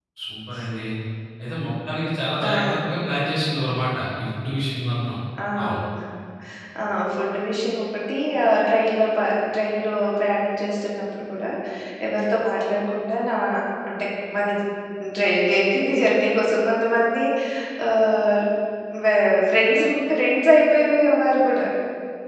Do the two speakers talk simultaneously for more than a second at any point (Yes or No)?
No